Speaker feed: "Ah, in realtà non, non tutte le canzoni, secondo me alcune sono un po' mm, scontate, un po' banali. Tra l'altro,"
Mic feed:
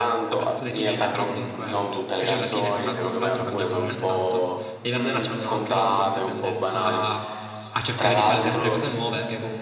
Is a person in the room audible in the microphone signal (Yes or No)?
Yes